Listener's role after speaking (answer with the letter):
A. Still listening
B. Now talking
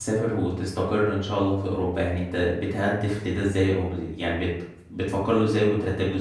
B